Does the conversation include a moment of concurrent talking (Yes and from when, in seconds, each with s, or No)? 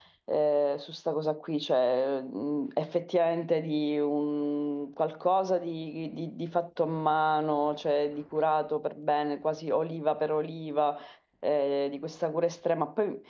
No